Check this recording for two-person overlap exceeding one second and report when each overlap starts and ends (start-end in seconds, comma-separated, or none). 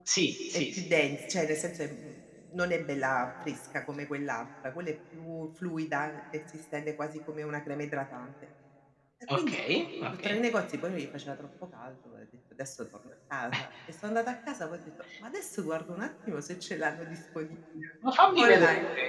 none